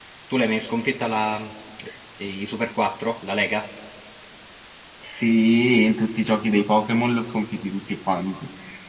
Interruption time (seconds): none

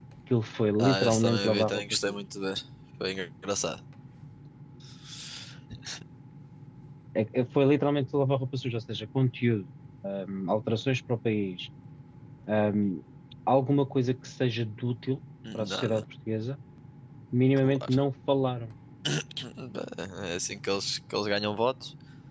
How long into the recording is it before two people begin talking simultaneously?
0.8 s

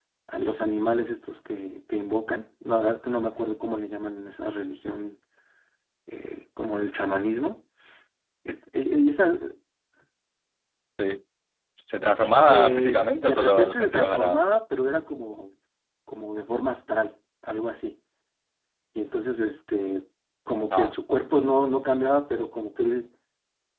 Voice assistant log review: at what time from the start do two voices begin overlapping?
12.5 s

